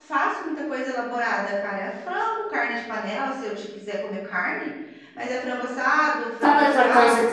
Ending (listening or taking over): taking over